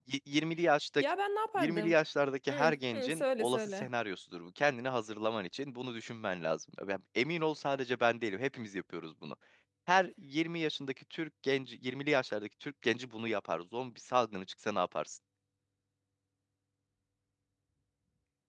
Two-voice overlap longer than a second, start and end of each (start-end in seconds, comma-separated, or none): 2.5-3.9